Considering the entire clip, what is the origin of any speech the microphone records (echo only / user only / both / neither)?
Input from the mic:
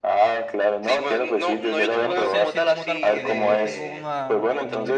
both